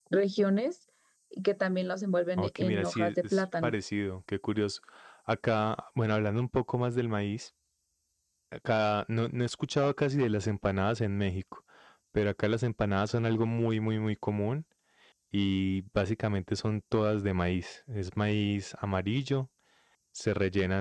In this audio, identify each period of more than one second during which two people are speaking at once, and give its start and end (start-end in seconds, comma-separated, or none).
2.4-3.7